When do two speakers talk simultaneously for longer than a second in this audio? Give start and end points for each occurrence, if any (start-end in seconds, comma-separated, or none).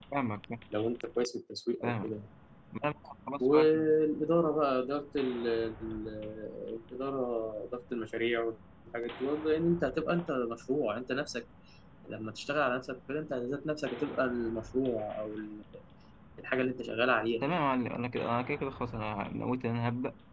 none